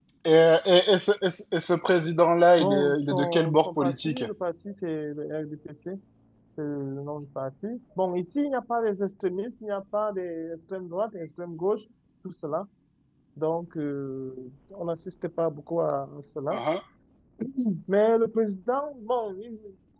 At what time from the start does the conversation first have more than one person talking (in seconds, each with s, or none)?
2.6 s